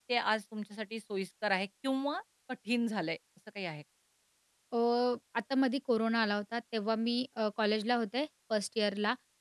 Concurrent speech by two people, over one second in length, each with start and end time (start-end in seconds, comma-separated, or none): none